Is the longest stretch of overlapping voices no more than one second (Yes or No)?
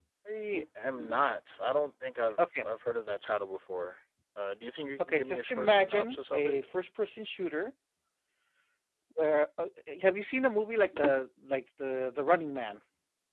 No